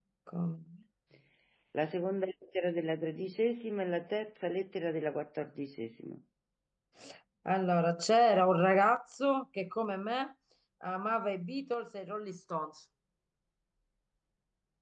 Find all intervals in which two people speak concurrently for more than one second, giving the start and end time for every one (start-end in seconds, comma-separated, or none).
none